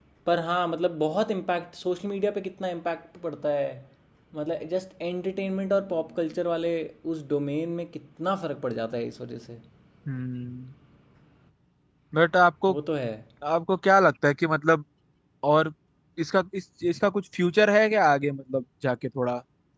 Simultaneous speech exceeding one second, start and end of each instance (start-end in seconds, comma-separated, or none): none